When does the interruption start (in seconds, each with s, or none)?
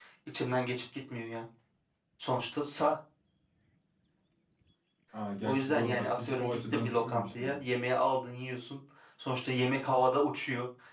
5.4 s